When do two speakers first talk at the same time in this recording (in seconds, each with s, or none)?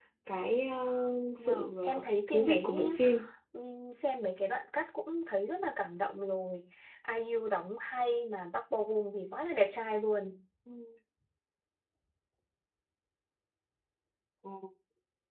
1.4 s